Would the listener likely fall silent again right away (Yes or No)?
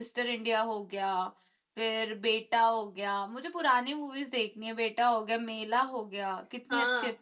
No